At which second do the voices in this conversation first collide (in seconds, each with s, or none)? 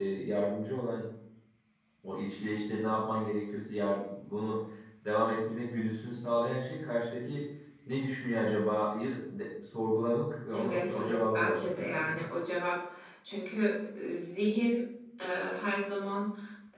10.5 s